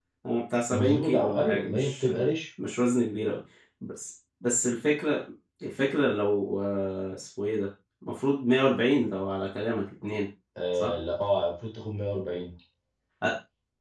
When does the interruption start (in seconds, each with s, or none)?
0.7 s